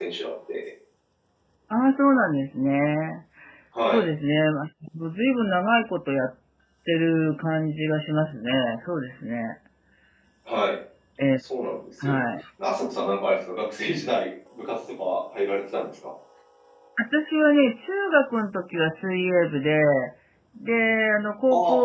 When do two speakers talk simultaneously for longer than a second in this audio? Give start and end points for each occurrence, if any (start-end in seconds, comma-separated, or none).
none